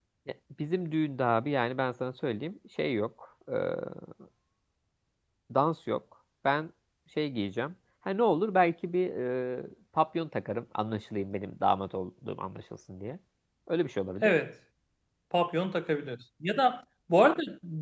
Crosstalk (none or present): none